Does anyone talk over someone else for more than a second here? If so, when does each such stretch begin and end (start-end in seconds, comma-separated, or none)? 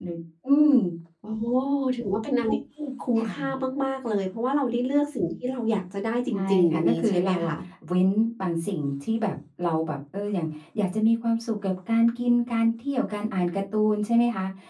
6.3-7.5